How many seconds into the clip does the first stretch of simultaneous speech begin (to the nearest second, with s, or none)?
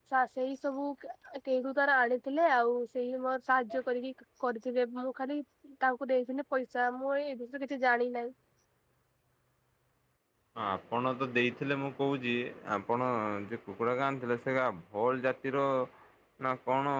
none